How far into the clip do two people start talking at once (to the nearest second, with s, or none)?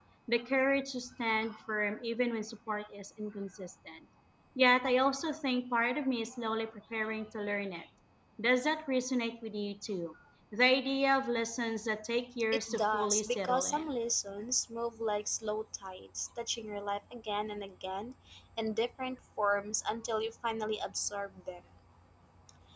13 s